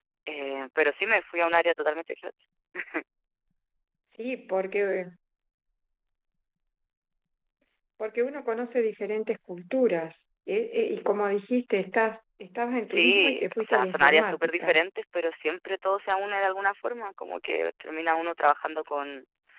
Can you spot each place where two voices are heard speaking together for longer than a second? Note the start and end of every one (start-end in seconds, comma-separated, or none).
12.9-14.8